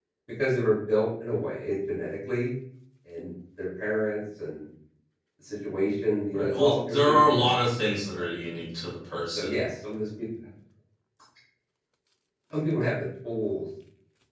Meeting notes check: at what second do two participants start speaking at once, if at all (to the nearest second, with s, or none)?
6 s